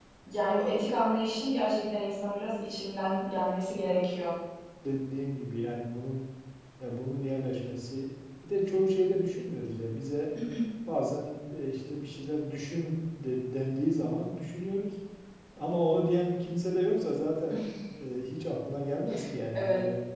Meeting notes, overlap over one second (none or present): none